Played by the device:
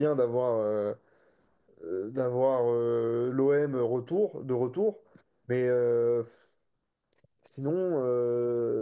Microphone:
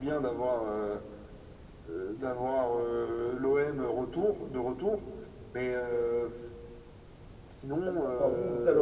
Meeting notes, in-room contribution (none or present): present